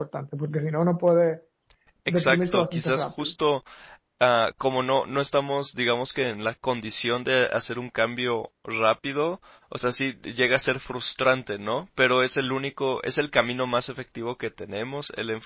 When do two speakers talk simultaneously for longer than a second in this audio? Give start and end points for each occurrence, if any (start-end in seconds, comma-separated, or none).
2.1-3.3